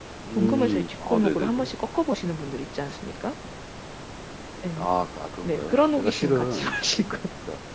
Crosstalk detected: Yes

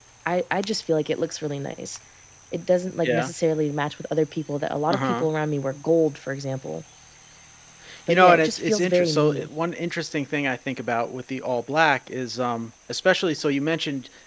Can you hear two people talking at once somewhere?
Yes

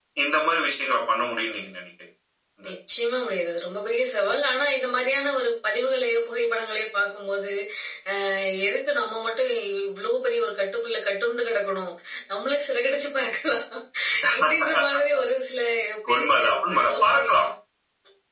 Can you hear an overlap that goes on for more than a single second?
Yes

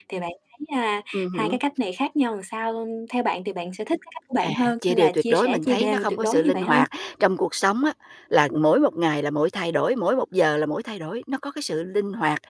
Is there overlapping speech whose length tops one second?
Yes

